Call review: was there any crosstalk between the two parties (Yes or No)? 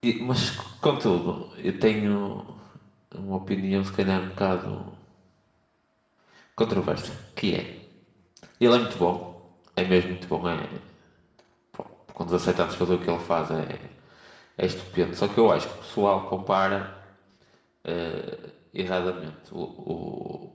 No